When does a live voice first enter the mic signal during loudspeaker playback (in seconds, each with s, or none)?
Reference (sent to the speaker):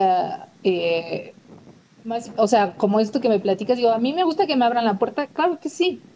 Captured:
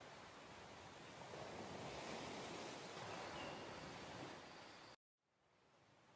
none